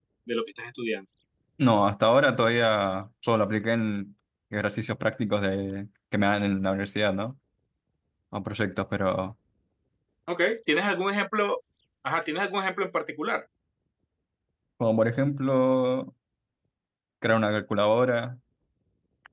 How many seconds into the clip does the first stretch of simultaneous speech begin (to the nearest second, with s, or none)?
none